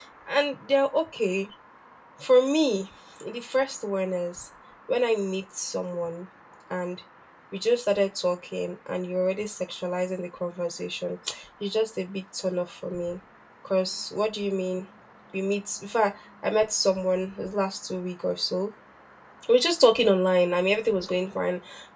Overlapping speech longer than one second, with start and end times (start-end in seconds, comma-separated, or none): none